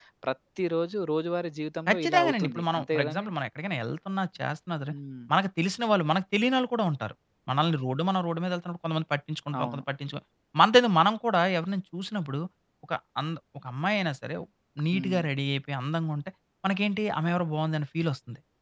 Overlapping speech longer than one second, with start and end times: 1.9-3.3

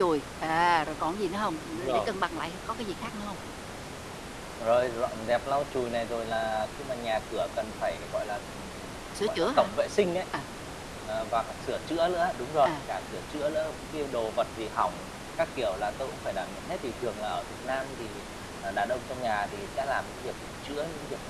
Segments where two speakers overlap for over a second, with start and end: none

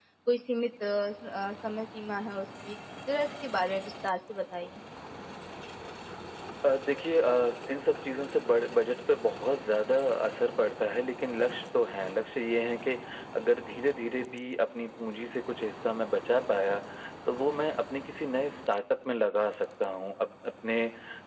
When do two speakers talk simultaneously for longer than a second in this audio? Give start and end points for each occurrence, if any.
none

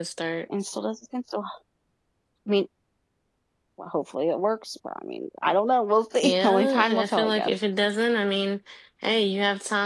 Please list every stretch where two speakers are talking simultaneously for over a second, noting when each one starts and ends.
6.2-7.5

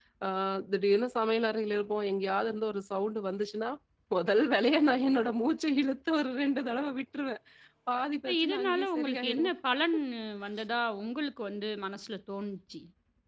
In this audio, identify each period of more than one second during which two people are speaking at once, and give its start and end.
8.3-9.5

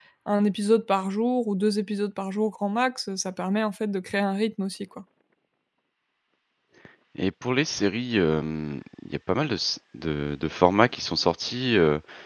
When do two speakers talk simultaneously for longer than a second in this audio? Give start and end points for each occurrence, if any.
none

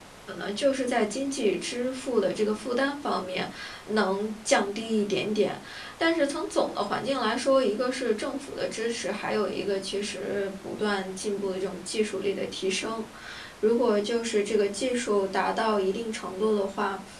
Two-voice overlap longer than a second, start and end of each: none

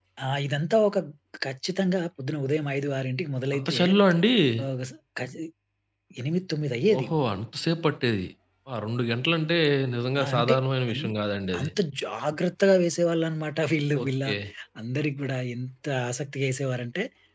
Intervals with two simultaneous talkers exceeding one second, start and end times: none

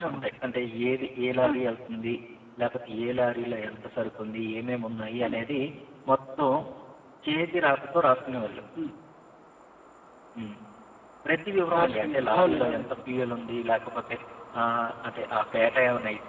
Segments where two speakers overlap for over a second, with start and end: 11.7-13.0

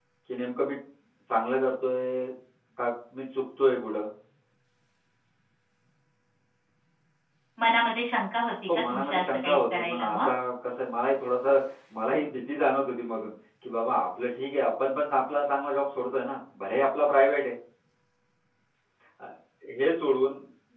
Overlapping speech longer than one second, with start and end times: 8.9-10.2

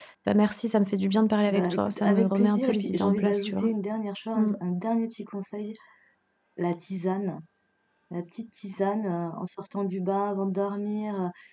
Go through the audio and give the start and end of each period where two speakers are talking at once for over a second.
1.5-3.7

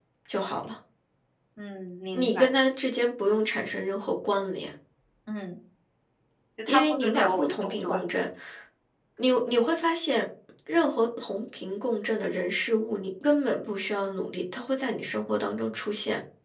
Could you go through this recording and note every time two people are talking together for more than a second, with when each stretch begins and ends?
6.7-8.0

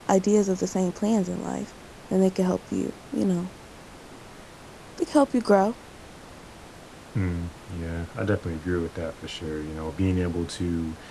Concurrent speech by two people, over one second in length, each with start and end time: none

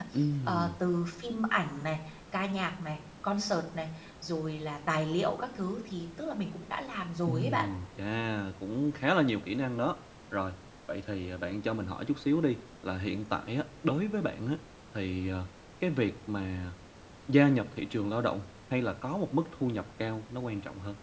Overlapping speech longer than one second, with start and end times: none

